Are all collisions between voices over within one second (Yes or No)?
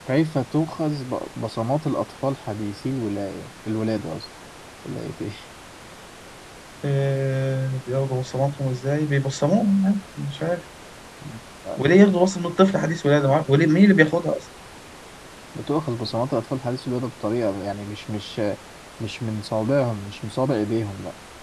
Yes